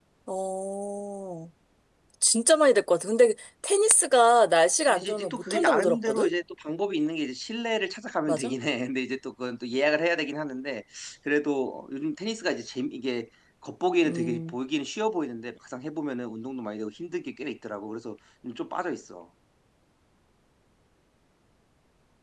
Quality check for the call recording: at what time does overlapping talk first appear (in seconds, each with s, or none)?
4.9 s